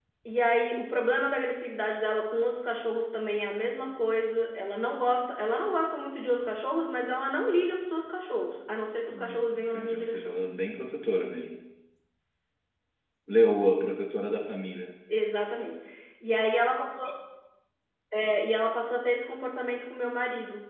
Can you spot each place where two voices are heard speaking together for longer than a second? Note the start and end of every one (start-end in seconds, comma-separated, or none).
9.1-10.3